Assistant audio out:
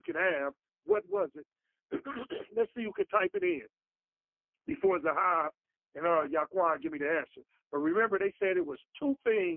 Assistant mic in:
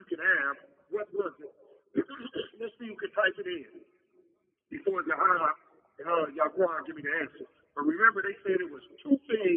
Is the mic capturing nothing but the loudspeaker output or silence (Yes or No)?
Yes